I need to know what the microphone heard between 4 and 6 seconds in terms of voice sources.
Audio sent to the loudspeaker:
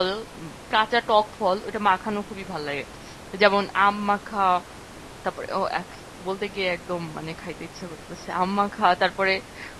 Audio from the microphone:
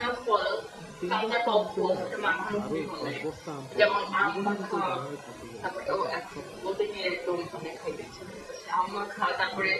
both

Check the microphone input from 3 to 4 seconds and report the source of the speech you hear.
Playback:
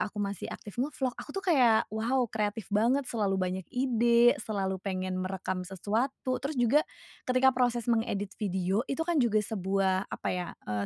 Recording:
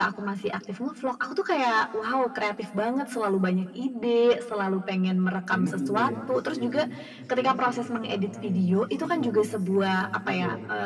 echo only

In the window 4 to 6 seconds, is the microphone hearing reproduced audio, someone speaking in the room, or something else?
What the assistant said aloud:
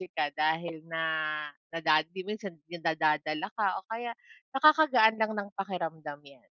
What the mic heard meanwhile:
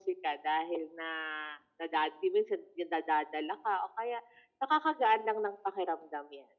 echo only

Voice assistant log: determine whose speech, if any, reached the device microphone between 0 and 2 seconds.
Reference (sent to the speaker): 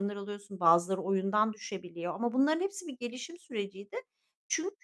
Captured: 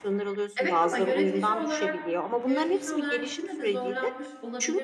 both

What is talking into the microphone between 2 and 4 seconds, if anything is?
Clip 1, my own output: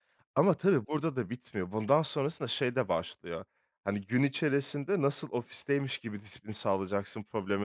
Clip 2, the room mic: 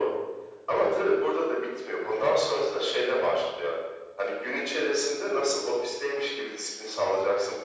echo only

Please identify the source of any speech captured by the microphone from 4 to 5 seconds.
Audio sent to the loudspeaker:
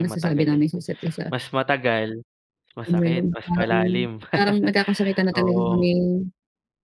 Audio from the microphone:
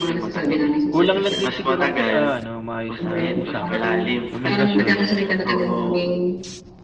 both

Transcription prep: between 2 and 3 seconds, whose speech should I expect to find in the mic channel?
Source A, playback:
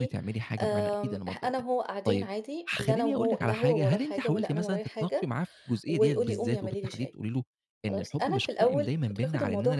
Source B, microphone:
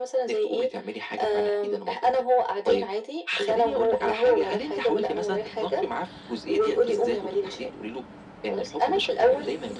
echo only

